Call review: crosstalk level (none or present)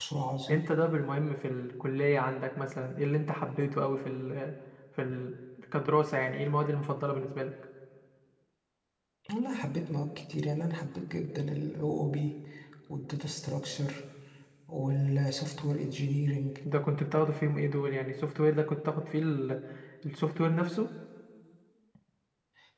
none